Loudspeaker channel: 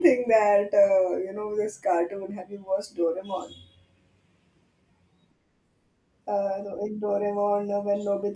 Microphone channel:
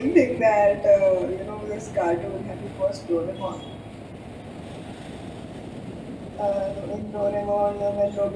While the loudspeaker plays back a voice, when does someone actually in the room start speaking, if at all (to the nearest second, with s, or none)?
none